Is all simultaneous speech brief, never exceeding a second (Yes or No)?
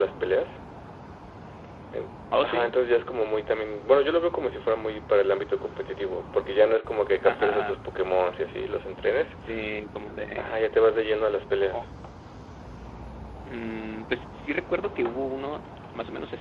Yes